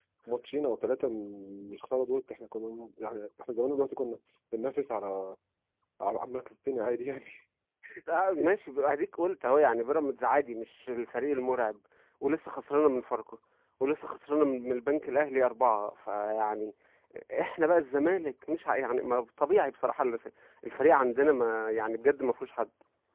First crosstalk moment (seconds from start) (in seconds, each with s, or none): none